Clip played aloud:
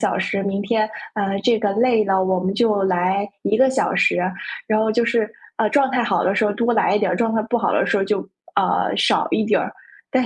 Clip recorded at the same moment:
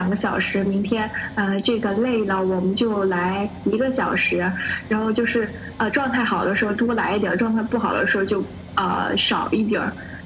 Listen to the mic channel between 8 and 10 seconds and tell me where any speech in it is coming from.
echo only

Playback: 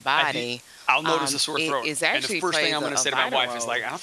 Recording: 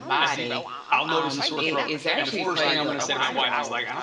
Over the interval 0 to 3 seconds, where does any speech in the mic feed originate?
both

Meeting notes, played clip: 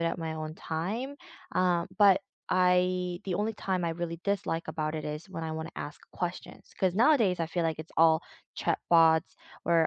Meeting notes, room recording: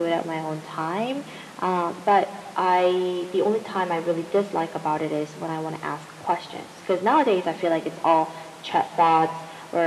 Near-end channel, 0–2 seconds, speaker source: echo only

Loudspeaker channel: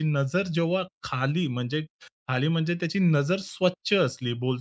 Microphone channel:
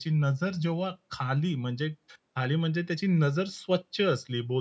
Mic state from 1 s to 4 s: echo only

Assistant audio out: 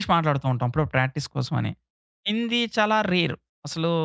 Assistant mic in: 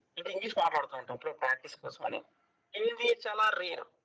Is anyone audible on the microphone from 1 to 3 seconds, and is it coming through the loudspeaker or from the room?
echo only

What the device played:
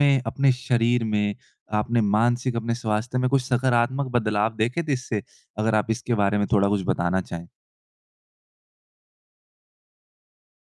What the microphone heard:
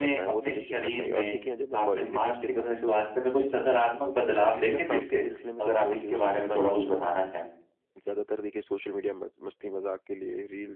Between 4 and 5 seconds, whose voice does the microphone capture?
both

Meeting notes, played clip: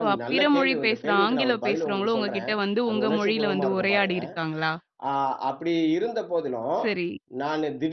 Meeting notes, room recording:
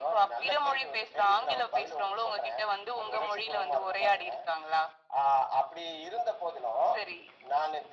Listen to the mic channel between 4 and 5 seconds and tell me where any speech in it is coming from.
echo only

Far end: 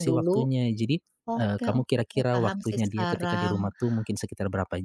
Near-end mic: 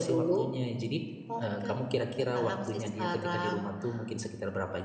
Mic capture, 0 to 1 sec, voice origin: echo only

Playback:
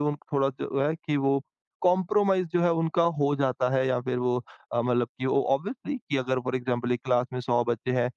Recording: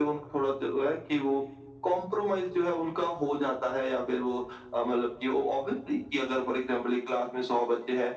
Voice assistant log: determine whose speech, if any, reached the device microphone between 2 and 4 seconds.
echo only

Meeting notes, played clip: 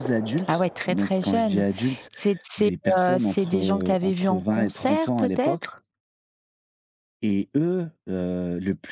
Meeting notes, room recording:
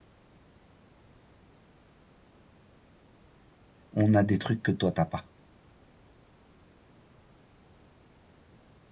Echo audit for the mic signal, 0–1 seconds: neither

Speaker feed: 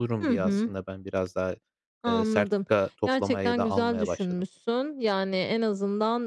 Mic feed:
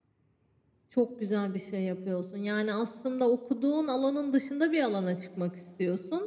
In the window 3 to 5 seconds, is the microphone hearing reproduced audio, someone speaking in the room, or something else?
user only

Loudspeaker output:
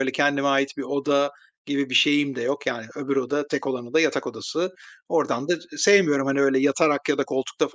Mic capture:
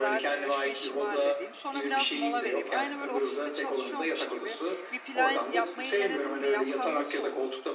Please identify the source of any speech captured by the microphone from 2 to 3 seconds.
both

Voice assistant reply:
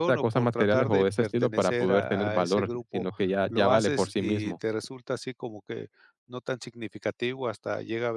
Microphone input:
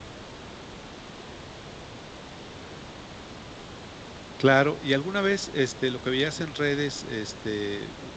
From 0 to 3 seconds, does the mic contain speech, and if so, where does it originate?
neither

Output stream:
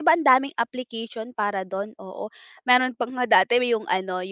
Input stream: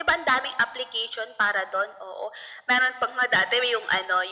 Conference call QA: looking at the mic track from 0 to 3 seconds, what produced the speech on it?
echo only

